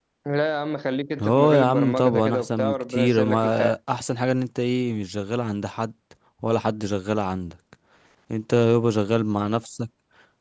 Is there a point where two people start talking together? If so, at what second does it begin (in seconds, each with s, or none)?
1.2 s